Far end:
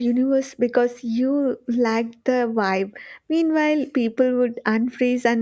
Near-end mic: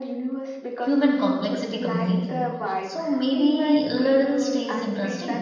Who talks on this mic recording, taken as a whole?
both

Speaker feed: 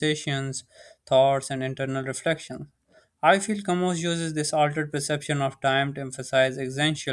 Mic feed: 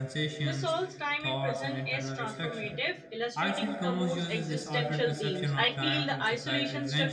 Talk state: both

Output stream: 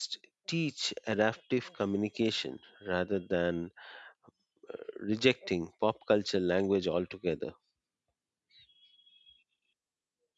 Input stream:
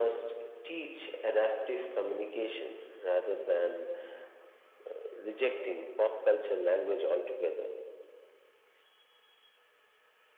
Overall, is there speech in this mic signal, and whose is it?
echo only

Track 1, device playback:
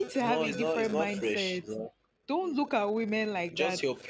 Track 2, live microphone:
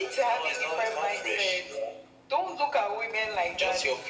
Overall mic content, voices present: echo only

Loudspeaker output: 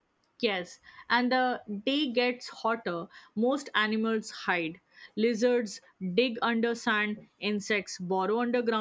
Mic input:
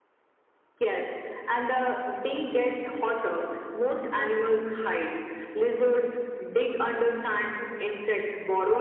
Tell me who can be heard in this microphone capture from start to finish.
echo only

